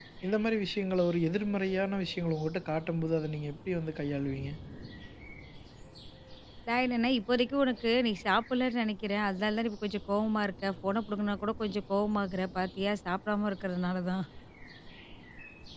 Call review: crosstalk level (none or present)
none